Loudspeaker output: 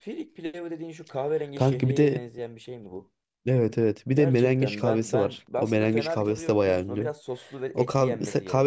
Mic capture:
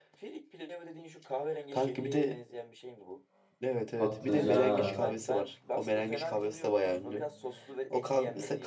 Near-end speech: present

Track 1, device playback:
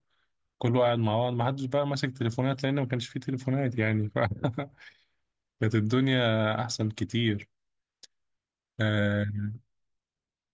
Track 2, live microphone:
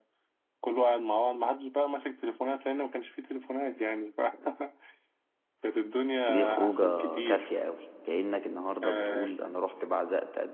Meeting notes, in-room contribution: present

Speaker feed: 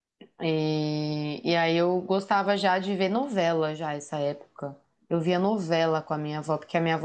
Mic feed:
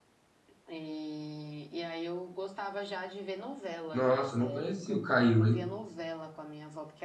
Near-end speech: present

